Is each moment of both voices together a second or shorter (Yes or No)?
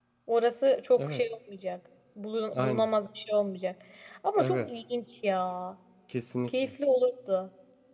Yes